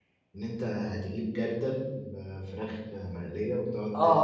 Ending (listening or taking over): taking over